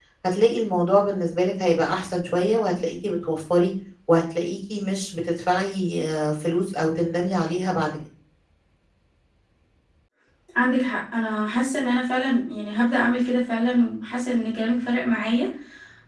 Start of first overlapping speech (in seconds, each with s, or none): none